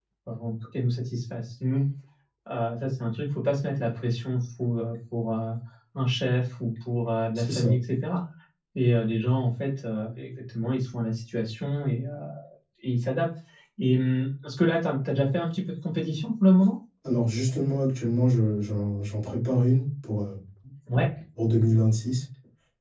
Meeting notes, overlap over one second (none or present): none